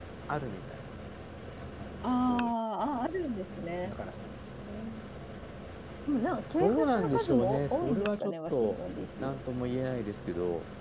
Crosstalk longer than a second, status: present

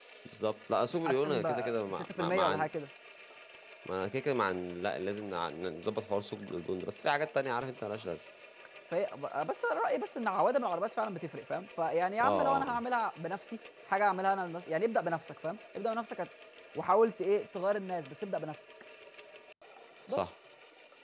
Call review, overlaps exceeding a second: present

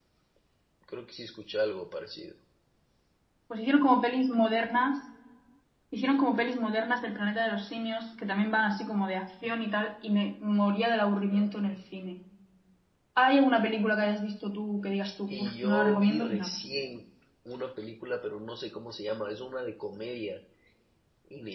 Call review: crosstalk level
present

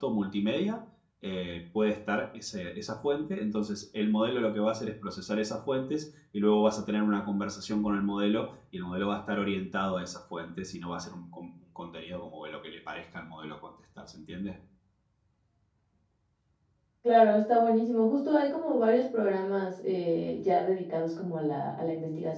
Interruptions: none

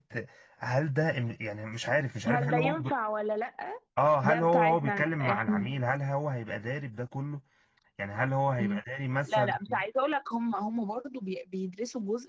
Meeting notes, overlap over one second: present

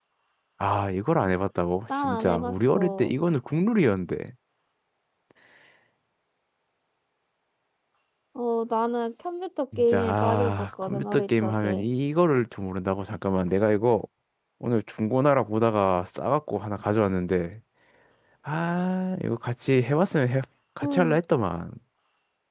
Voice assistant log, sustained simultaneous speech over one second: present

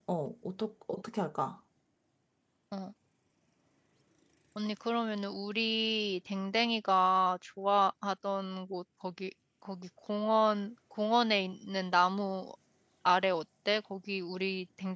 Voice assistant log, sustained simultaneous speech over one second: none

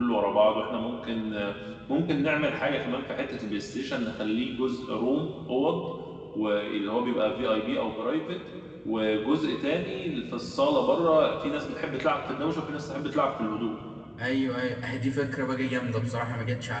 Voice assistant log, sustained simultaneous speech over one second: none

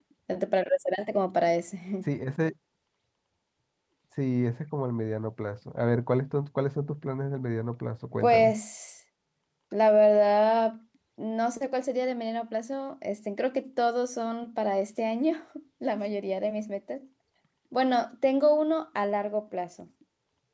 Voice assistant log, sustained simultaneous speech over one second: none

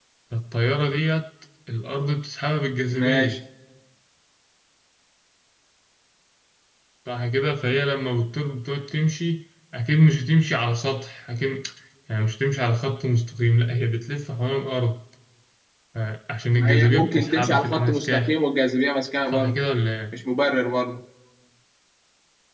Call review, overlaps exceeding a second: present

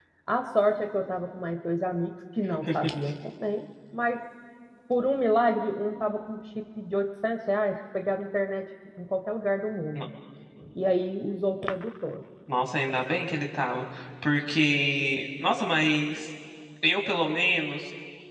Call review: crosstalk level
none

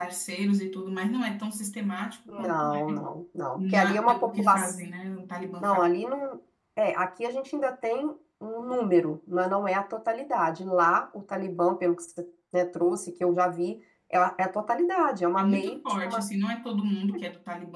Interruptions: present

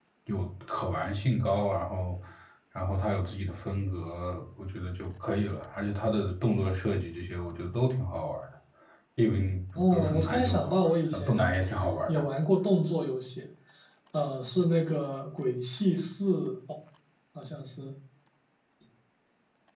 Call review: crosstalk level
present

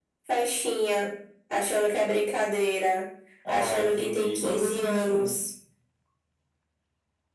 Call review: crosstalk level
present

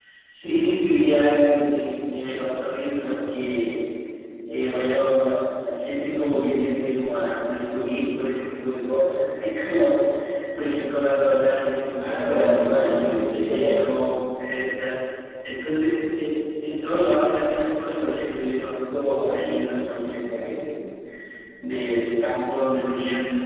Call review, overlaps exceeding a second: present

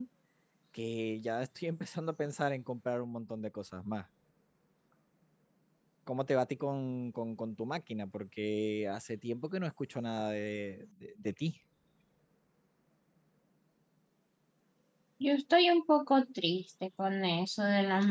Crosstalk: none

